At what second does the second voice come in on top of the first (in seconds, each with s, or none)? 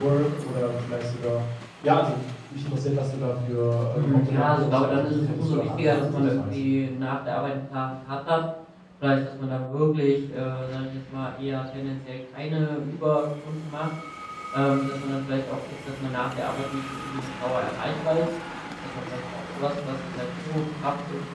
3.9 s